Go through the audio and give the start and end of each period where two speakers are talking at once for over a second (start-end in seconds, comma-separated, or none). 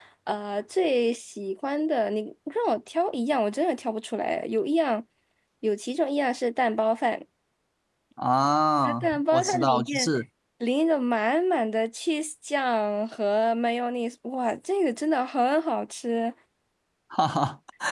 8.8-10.1